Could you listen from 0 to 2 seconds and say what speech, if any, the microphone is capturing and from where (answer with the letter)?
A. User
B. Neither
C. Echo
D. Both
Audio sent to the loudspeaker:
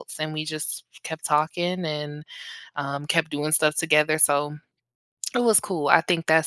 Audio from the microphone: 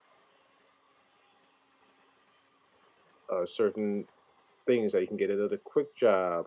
B